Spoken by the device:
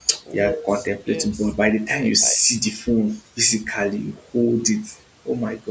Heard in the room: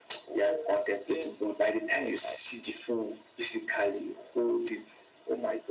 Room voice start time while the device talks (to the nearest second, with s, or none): none